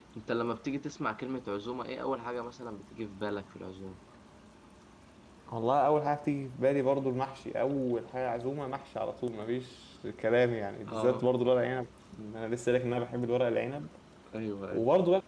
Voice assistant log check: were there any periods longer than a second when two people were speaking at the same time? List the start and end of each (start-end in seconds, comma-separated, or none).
none